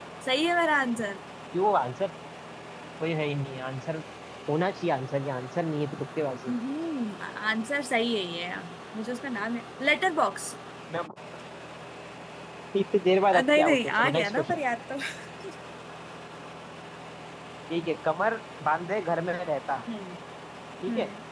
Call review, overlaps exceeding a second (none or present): present